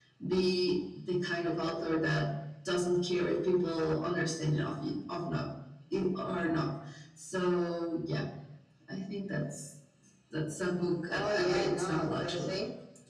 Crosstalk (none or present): present